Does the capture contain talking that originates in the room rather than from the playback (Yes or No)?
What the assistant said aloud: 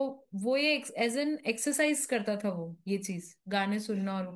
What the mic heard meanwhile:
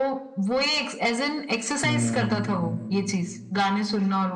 Yes